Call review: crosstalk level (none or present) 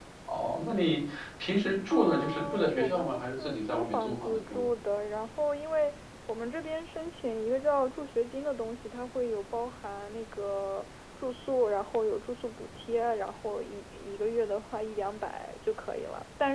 present